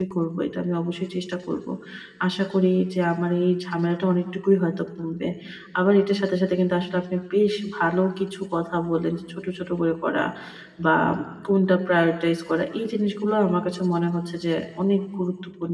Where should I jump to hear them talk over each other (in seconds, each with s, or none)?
none